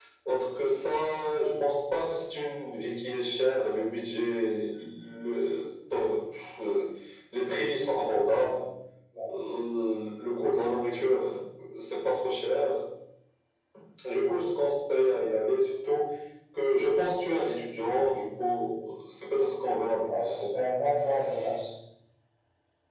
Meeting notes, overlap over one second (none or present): none